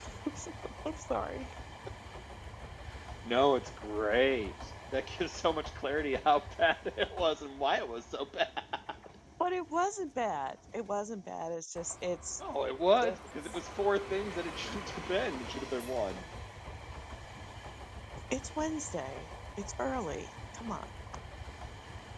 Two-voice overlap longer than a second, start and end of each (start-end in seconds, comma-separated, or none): none